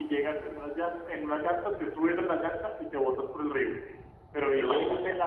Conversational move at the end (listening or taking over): listening